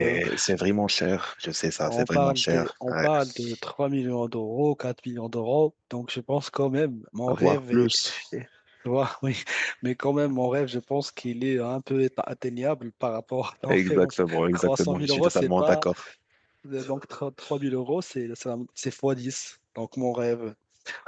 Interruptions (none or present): present